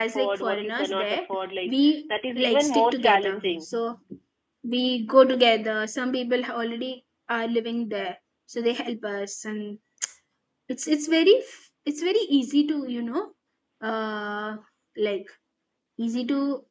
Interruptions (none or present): present